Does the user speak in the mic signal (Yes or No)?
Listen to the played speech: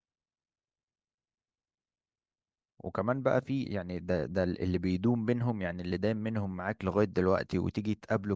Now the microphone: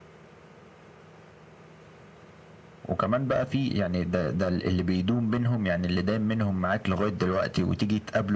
No